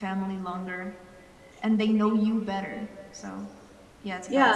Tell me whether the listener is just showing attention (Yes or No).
No